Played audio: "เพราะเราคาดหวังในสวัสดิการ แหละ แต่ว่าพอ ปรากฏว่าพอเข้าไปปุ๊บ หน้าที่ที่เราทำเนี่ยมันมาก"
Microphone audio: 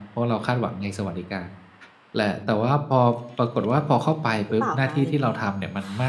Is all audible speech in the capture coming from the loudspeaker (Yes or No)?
No